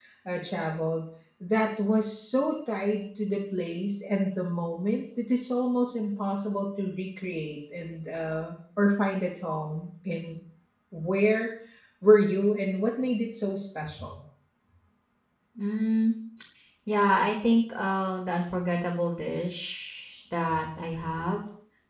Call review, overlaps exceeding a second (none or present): none